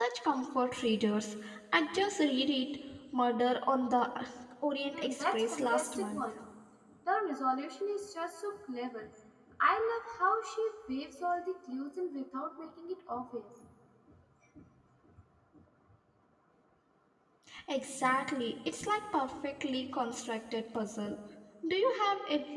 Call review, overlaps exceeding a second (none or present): present